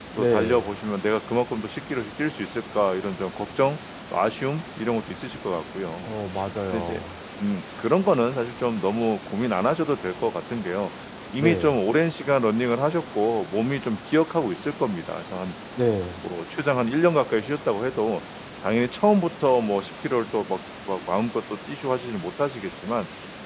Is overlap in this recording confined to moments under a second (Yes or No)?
Yes